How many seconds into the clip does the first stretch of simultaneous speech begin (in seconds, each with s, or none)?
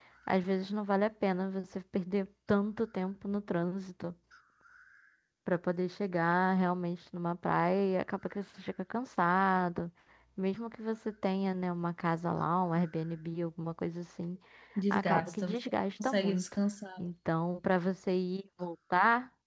14.9 s